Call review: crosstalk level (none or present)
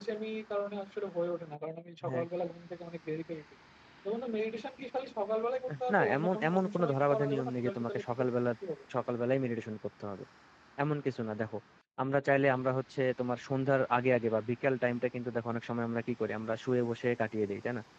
present